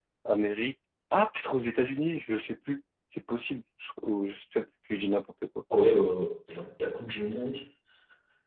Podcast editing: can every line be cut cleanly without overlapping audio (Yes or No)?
Yes